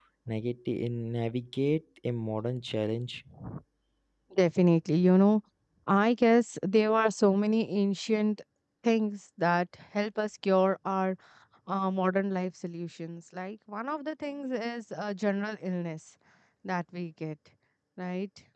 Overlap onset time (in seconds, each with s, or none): none